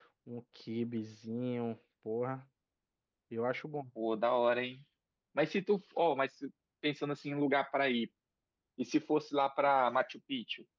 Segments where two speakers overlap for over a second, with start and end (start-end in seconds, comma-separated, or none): none